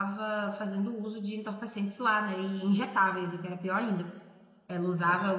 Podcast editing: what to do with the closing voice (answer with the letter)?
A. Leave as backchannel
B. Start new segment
A